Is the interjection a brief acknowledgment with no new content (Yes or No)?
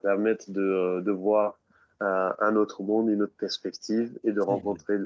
Yes